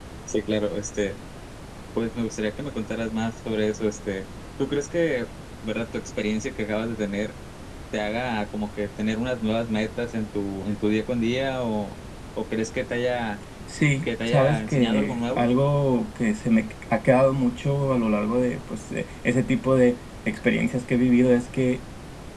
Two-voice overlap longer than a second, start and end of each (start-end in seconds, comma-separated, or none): 14.0-15.5